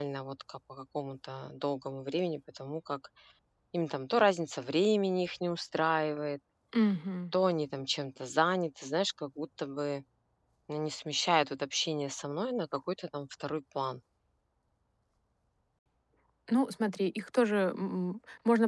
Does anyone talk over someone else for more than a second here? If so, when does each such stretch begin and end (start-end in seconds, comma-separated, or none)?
none